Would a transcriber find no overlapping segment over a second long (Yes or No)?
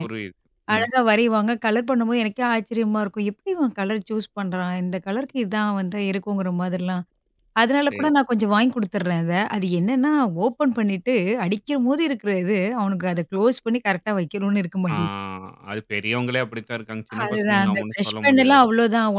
No